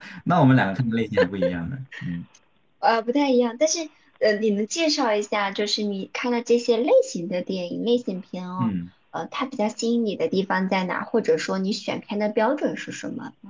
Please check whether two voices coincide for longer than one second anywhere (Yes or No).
No